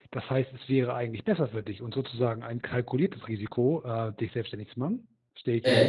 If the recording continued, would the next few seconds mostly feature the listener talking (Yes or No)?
Yes